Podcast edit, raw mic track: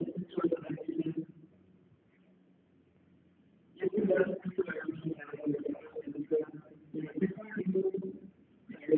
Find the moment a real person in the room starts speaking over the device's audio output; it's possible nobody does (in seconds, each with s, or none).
none